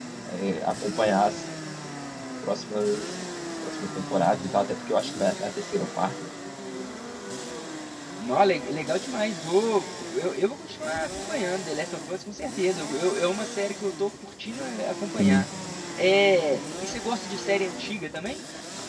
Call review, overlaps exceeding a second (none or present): none